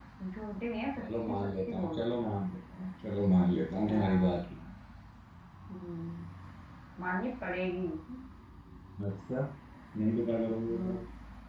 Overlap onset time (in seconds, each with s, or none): 1.0 s